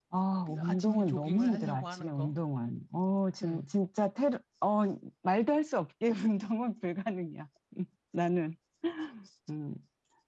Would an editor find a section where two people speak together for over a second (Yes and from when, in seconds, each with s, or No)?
Yes, from 0.6 s